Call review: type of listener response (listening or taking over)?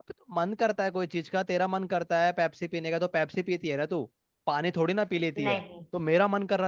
listening